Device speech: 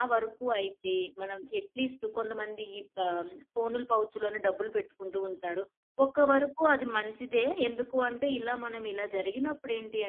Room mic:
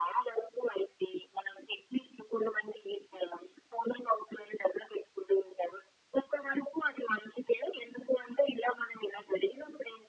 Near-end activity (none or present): none